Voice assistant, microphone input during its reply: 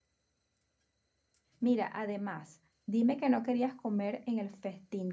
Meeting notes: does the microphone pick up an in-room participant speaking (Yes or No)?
Yes